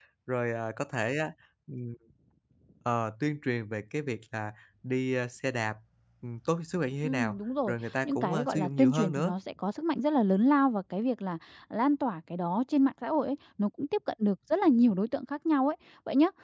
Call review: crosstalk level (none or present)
present